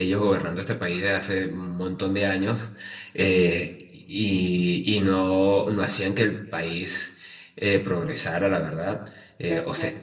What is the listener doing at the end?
listening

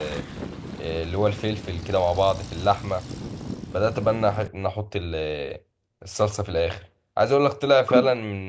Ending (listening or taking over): listening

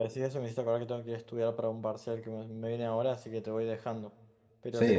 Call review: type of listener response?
taking over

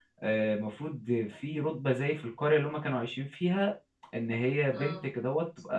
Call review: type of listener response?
listening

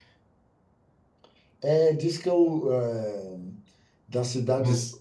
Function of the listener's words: listening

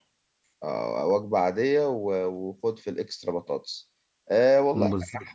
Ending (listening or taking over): listening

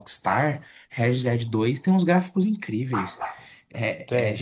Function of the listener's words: listening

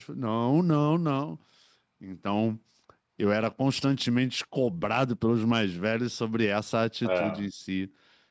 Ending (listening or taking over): listening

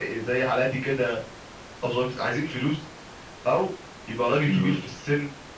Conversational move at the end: listening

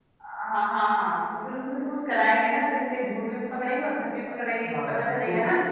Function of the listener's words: taking over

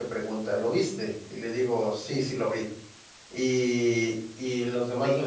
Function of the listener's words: listening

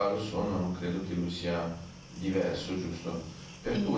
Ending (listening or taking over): listening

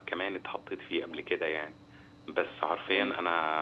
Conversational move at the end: listening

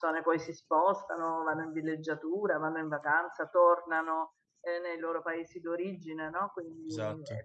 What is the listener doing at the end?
listening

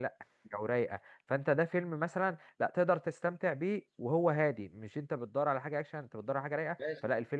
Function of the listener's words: taking over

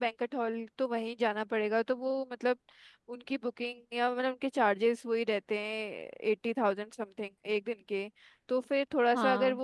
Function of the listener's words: listening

